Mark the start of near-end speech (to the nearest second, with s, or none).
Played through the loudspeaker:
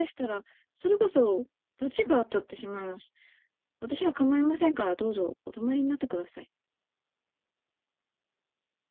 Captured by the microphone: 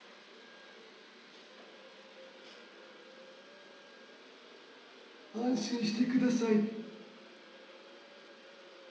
5 s